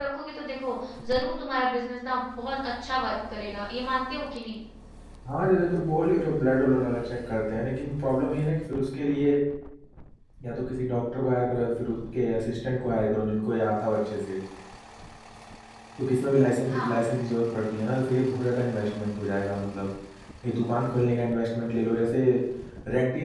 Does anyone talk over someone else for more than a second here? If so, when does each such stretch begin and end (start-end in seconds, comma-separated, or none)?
none